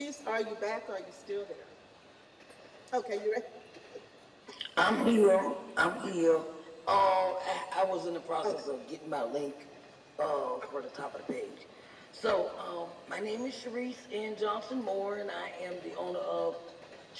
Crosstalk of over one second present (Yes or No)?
No